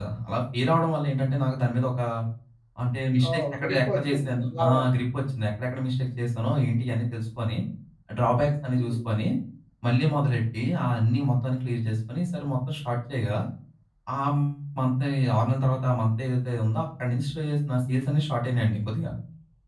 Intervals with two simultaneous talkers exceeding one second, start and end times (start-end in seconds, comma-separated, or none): 3.3-4.9